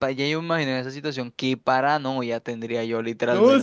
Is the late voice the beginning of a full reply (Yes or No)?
Yes